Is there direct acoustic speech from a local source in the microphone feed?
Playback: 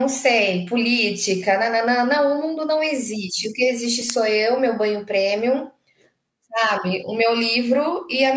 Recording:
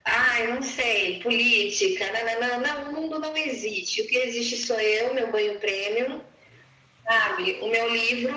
No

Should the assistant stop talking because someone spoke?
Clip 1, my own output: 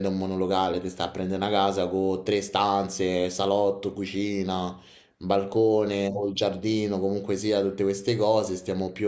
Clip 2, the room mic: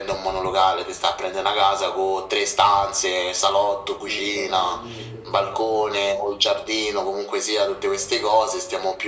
Yes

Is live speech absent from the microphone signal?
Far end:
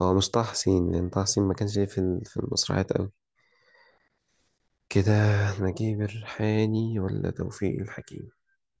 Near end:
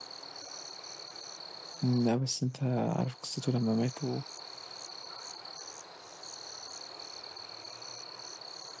No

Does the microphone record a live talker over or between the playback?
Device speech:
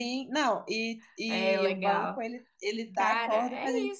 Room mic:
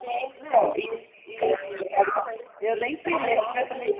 Yes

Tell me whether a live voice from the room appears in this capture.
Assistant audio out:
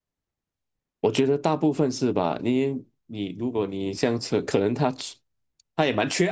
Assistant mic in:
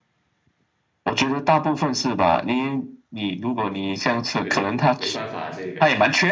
Yes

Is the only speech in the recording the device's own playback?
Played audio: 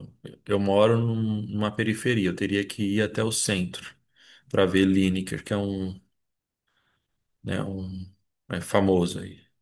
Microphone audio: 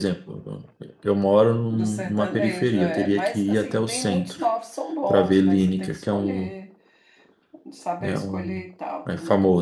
No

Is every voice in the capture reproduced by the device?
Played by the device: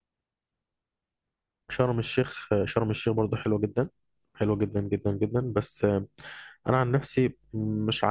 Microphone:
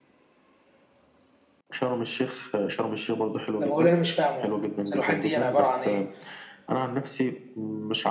No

